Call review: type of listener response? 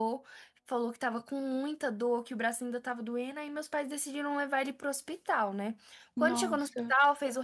listening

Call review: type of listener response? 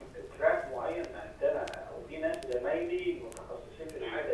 listening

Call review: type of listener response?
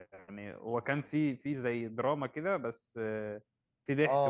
taking over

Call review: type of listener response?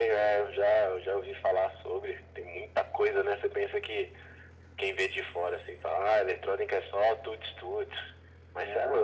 listening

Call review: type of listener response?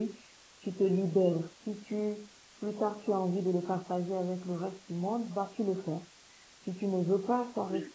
listening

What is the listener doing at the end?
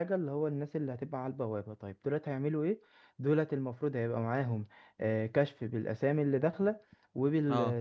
listening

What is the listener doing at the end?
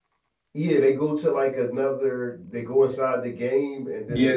taking over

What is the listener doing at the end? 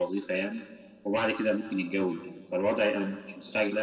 listening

